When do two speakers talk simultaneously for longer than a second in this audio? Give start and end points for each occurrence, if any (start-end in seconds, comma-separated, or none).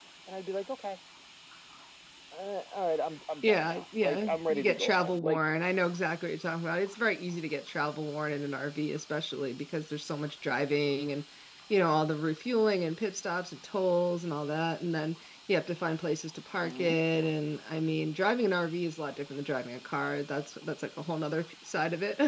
3.4-5.4